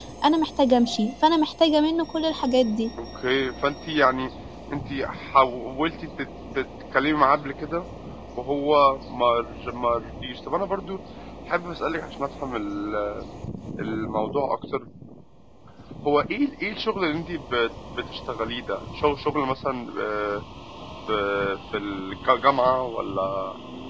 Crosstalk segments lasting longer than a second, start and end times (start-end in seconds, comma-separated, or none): none